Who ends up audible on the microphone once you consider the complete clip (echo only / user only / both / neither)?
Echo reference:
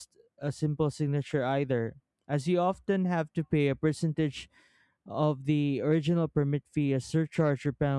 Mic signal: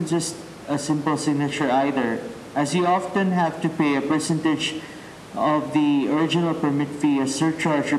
echo only